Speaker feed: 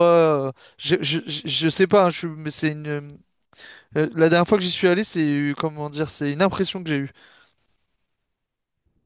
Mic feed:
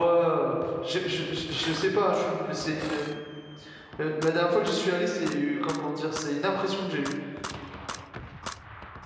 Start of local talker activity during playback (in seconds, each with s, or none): none